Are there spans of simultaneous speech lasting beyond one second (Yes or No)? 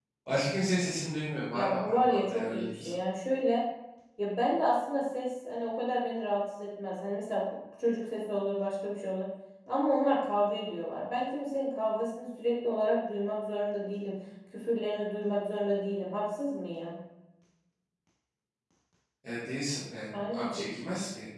Yes